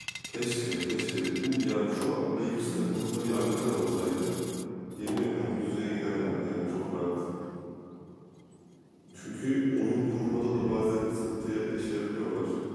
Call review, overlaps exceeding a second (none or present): present